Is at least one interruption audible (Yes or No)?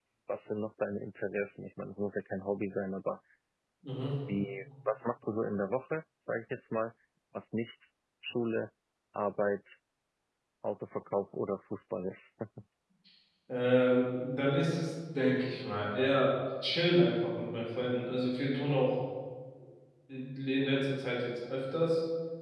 No